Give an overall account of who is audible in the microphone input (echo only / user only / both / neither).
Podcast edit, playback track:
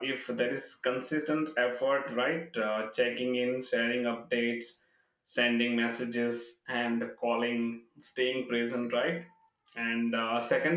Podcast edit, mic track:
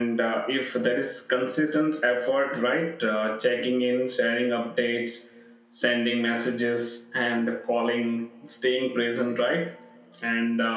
echo only